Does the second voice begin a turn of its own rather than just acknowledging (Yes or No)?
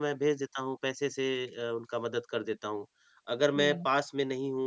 No